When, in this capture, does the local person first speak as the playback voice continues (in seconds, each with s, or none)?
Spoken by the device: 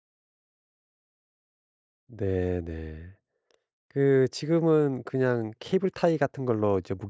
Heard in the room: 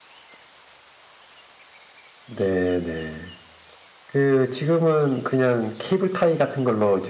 none